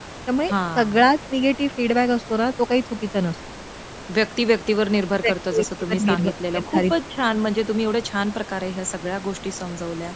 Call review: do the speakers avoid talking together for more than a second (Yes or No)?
No